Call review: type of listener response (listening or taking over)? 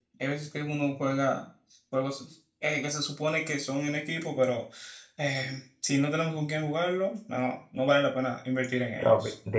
taking over